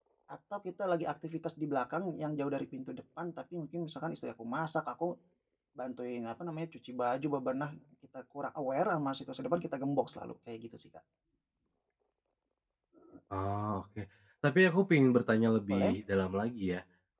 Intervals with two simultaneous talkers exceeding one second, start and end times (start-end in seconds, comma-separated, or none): none